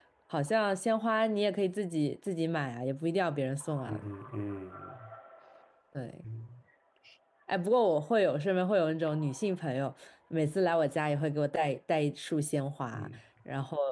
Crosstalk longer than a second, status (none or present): none